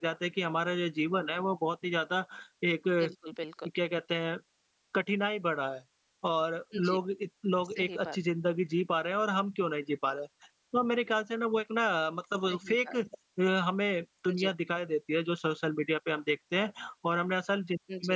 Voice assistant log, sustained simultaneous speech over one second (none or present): none